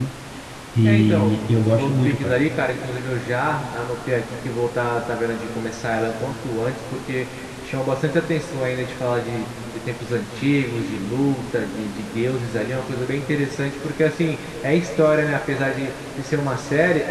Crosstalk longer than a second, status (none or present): present